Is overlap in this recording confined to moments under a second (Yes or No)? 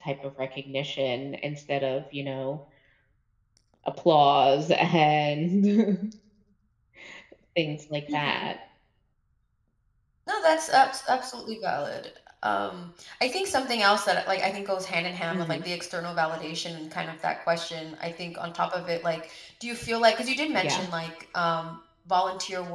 Yes